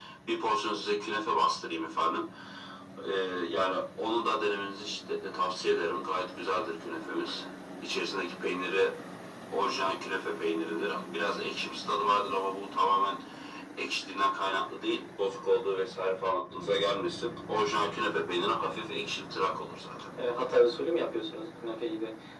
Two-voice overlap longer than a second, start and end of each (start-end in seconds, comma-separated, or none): none